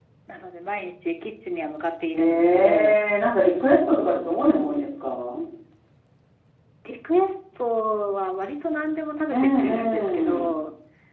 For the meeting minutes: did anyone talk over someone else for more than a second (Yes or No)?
Yes